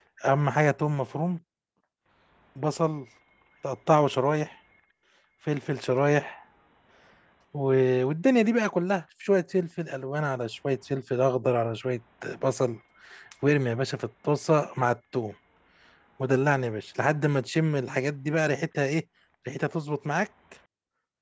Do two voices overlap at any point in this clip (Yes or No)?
No